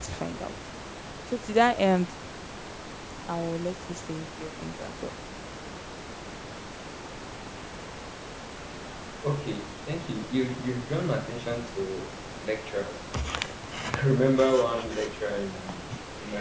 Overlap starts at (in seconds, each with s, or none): none